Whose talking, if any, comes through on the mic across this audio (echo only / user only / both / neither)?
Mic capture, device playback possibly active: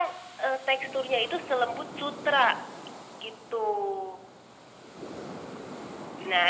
echo only